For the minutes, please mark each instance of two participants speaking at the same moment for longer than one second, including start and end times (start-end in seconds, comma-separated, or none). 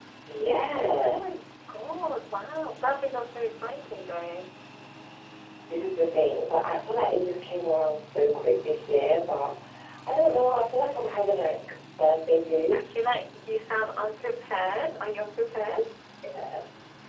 none